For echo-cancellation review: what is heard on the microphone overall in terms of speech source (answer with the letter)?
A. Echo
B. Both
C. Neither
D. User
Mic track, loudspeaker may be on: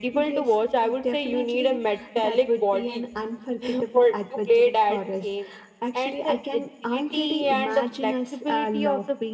A